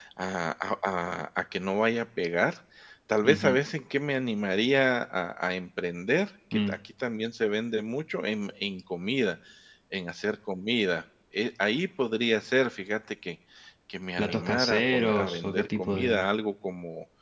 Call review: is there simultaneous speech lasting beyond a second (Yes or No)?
Yes